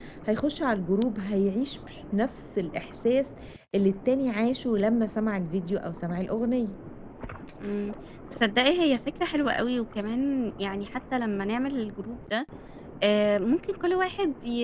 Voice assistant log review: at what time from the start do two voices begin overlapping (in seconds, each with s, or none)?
none